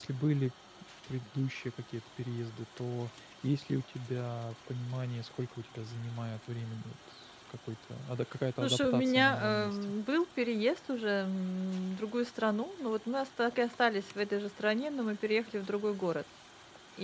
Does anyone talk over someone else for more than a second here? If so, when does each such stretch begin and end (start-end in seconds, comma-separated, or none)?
8.6-9.9